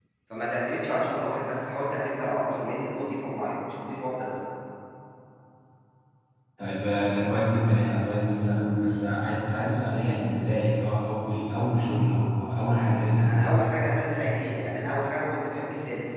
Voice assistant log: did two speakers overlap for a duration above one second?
No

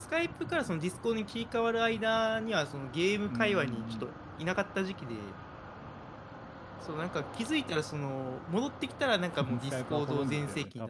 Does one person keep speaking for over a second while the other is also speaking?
Yes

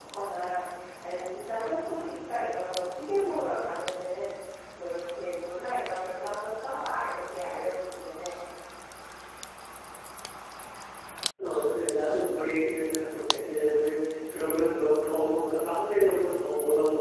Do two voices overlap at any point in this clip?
No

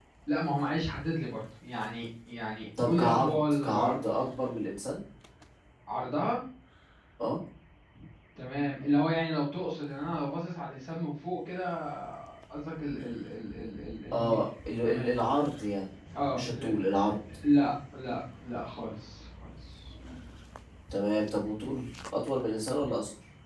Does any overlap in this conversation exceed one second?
Yes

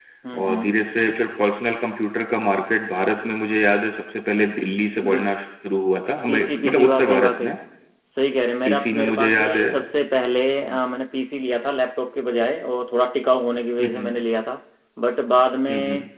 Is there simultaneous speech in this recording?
Yes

